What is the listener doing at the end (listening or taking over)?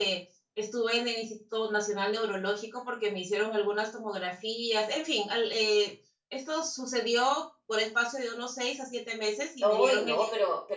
taking over